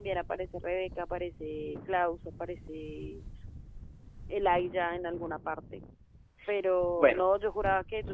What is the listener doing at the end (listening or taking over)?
listening